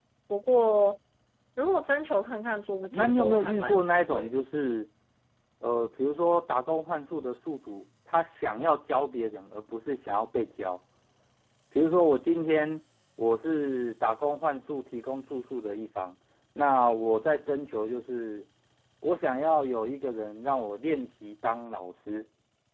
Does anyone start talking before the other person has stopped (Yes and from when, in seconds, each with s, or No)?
Yes, from 2.7 s